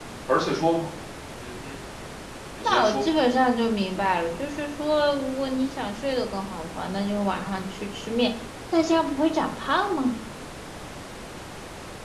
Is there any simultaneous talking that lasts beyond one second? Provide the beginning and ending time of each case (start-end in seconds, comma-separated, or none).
none